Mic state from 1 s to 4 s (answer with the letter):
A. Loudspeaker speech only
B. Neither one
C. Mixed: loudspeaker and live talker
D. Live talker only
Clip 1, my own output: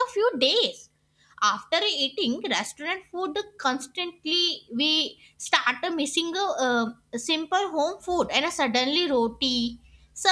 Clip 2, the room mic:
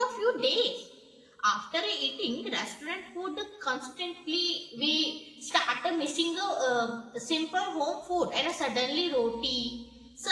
A